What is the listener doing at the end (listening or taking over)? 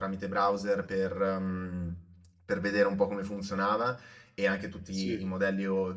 listening